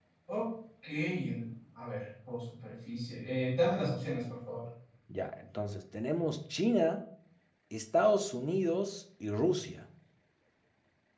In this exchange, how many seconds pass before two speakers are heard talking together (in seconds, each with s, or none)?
none